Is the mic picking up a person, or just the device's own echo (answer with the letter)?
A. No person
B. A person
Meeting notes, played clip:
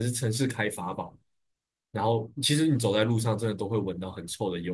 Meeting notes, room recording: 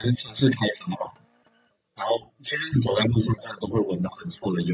A